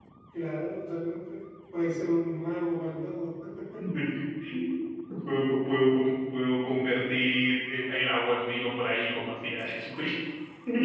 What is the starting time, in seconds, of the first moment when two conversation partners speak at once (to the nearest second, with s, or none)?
none